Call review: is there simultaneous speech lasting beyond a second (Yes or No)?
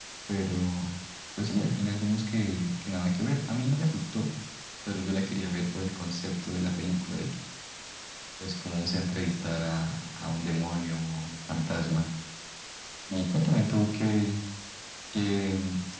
No